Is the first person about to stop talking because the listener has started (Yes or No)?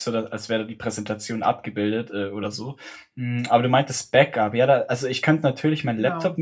No